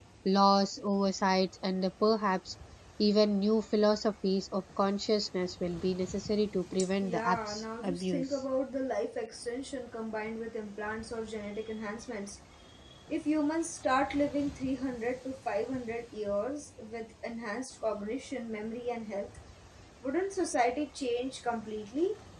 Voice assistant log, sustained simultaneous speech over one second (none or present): present